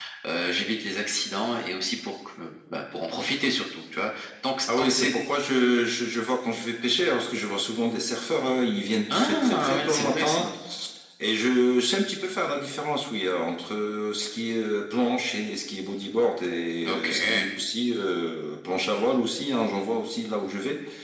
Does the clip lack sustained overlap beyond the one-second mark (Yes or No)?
No